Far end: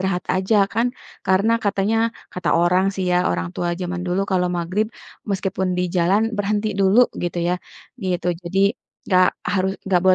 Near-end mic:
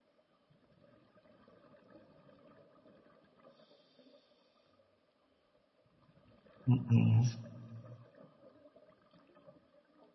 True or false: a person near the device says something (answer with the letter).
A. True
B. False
A